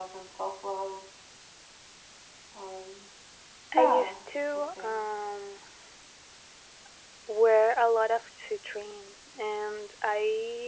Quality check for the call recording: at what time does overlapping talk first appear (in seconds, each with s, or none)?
3.8 s